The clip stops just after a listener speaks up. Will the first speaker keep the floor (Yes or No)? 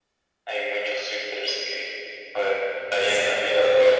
No